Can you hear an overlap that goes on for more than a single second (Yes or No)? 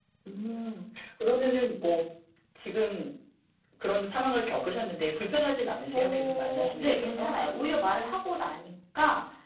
Yes